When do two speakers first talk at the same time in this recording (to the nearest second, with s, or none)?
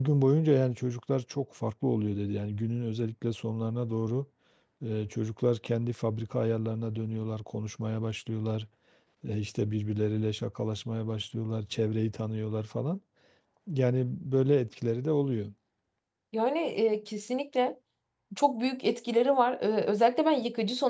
none